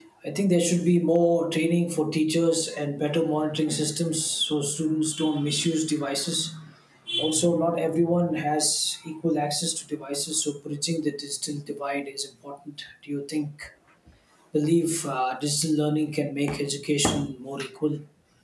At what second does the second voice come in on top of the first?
none

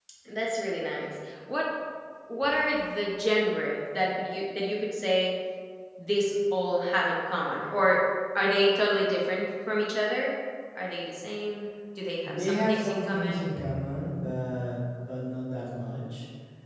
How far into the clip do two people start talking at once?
12 s

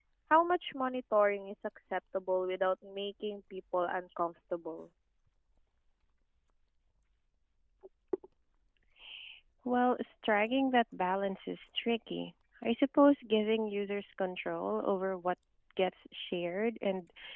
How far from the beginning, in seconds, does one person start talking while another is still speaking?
none

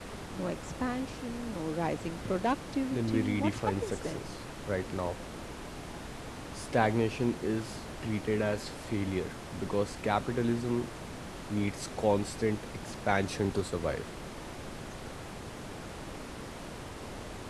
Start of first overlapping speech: 3 s

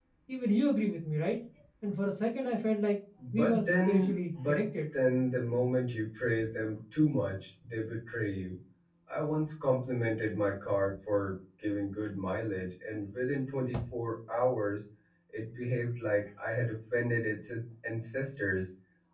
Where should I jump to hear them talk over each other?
3 s

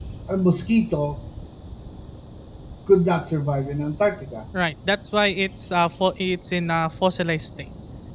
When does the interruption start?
none

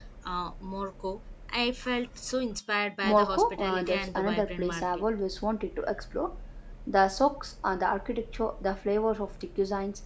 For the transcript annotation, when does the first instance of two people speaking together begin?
3 s

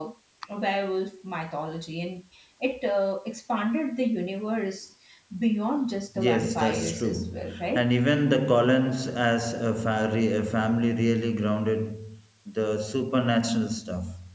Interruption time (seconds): 6 s

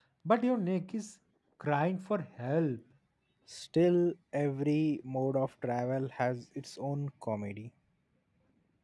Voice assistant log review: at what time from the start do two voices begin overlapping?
none

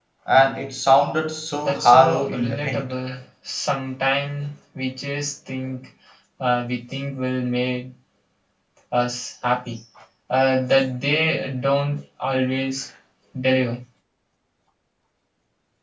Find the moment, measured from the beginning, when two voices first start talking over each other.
2 s

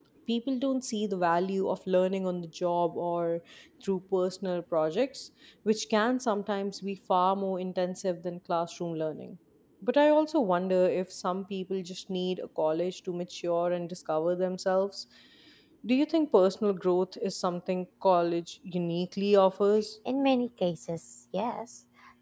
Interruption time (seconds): none

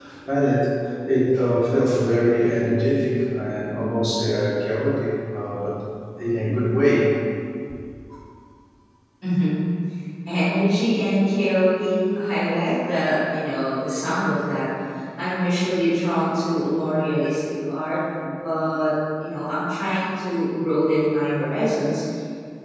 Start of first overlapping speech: none

